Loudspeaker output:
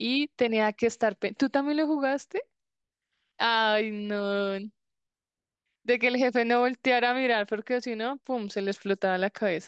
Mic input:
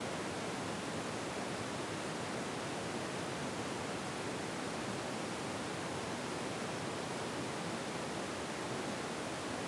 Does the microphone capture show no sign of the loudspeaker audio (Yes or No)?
Yes